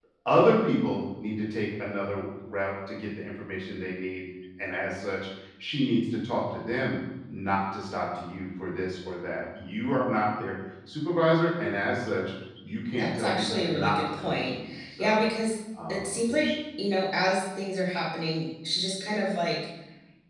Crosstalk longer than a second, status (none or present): present